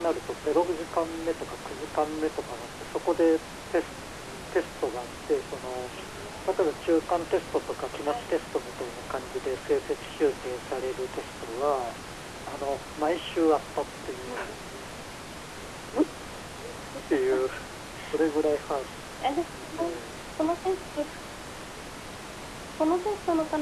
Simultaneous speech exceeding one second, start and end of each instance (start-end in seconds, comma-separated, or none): none